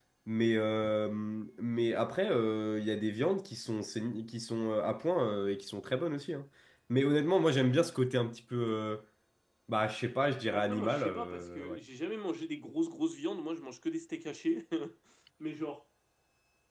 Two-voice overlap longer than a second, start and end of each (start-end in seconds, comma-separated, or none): 10.5-11.8